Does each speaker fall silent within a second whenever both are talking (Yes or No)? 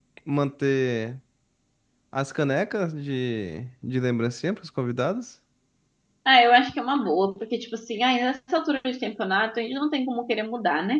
Yes